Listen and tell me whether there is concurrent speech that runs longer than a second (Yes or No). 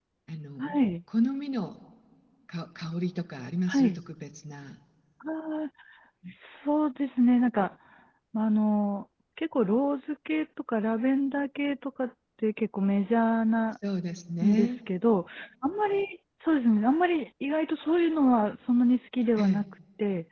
No